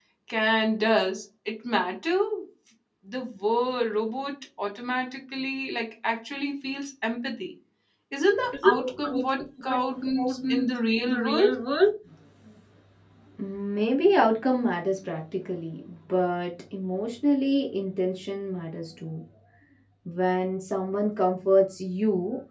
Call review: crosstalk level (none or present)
present